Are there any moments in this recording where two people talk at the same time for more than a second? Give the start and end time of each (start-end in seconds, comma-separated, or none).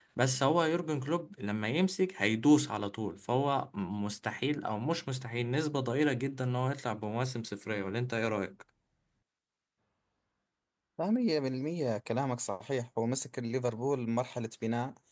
none